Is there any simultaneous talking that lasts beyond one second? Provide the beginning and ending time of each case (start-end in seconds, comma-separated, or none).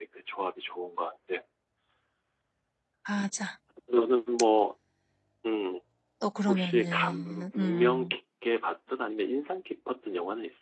6.5-8.1